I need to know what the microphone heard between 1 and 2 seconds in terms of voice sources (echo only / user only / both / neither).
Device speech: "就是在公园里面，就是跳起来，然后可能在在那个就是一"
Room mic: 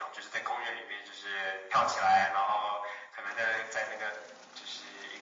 echo only